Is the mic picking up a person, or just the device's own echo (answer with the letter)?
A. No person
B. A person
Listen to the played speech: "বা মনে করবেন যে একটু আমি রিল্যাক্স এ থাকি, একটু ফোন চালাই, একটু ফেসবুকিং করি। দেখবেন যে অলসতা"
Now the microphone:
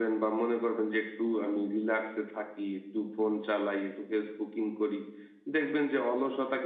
A